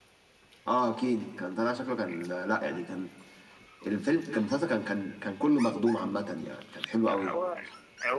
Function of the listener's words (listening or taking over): taking over